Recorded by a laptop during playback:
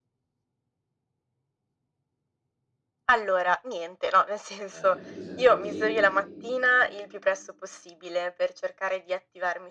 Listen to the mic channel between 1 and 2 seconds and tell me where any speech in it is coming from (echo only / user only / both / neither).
neither